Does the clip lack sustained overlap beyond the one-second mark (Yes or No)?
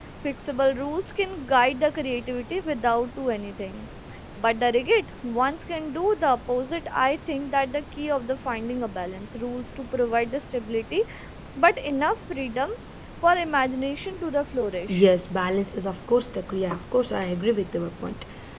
Yes